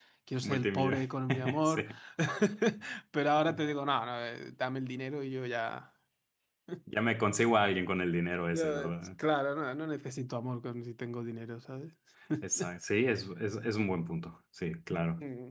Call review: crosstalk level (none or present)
present